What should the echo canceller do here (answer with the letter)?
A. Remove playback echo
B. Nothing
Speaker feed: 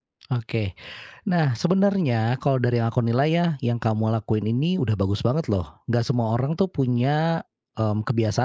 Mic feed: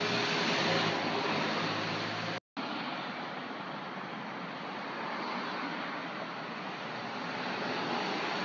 B